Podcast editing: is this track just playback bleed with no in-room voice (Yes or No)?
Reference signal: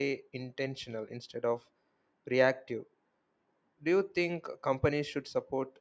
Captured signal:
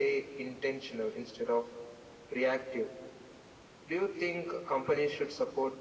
Yes